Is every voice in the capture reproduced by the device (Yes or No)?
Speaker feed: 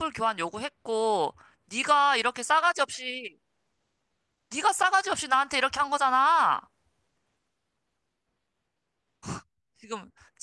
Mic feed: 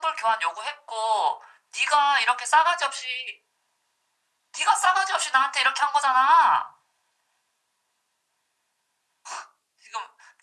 Yes